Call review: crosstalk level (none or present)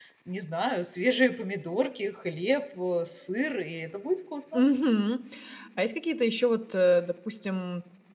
none